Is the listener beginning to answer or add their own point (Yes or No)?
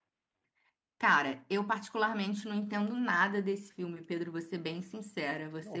No